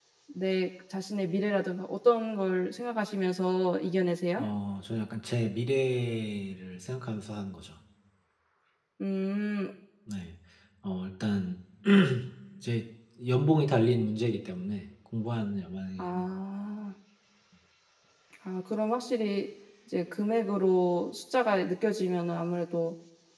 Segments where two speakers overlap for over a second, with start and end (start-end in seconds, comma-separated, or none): none